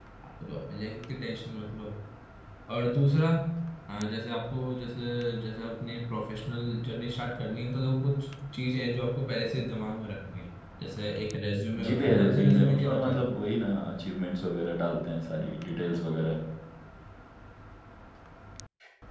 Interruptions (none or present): present